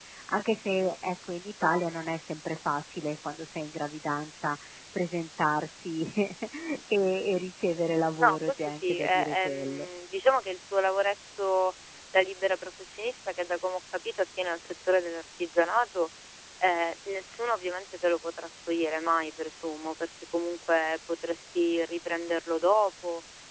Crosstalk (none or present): present